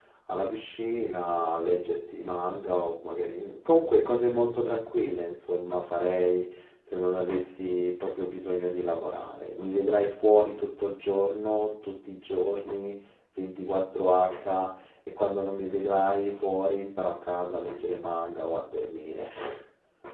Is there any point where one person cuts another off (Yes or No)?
No